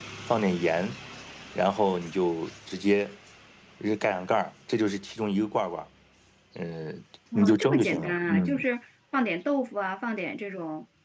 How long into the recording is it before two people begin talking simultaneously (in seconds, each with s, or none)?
7.4 s